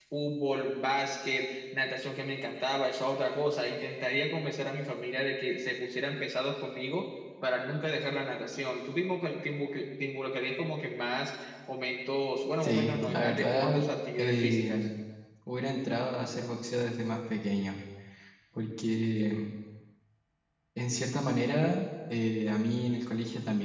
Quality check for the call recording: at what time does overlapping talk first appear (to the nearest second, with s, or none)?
13 s